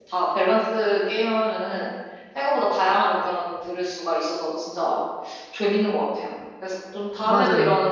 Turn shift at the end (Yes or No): No